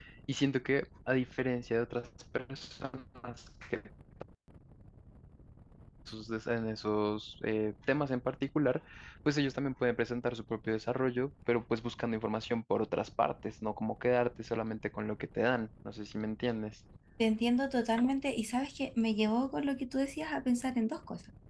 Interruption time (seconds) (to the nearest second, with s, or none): none